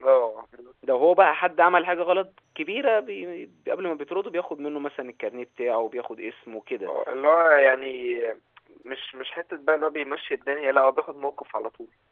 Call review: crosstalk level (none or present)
none